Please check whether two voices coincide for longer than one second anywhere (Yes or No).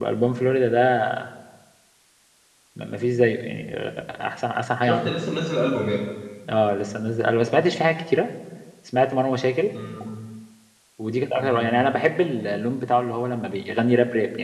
No